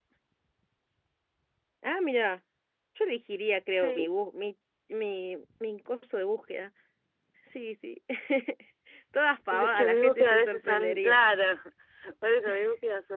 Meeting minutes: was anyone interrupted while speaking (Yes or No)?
Yes